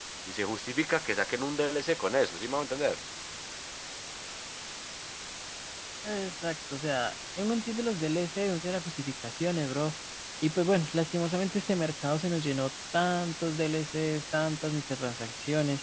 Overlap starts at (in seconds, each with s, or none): none